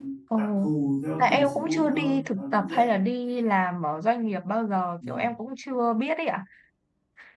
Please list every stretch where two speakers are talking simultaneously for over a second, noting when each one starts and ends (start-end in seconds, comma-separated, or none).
1.2-2.9